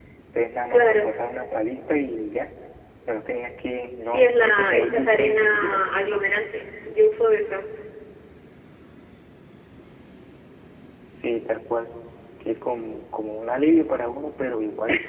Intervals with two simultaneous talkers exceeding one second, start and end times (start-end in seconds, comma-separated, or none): 4.0-6.0